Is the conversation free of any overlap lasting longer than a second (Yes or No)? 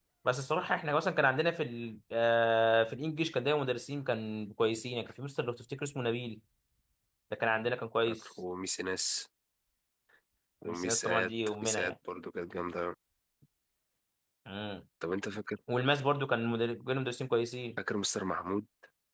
No